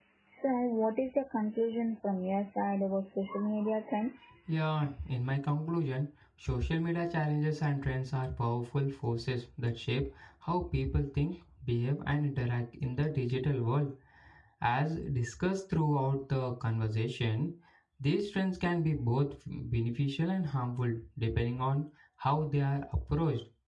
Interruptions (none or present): none